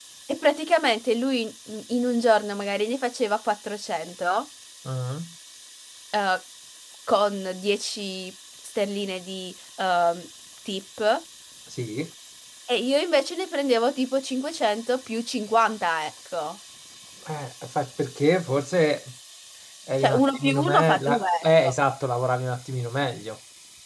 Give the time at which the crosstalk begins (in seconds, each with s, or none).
20.0 s